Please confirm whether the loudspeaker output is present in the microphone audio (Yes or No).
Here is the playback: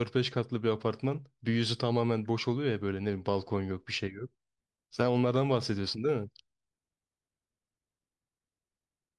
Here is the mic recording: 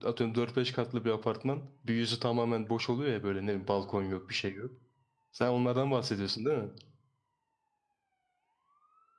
Yes